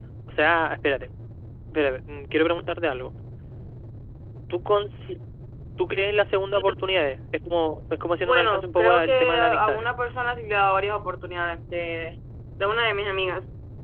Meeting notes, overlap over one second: present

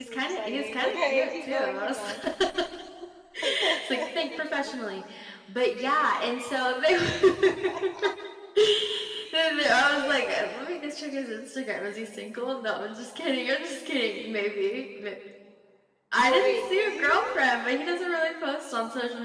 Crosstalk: present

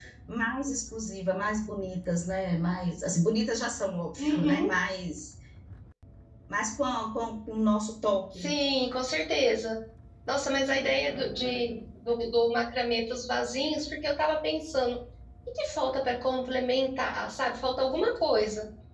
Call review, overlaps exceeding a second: none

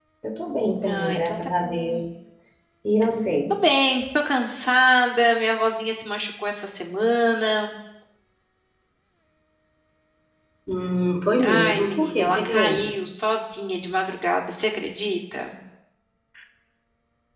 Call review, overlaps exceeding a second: present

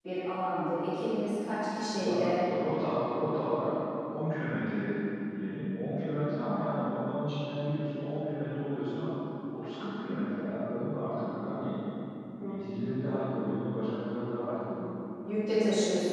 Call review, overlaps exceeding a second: none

